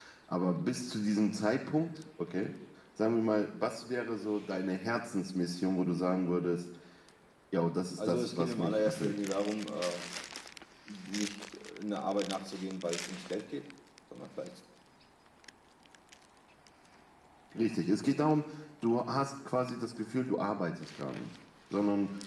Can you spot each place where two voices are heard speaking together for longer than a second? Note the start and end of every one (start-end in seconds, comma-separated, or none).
8.0-9.2